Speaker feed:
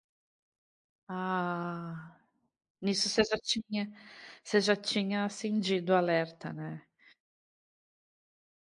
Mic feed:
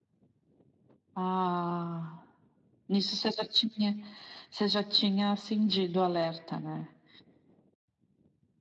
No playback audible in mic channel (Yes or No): No